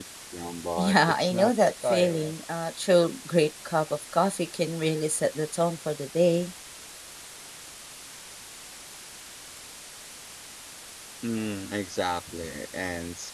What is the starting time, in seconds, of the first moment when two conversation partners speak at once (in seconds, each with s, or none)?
0.8 s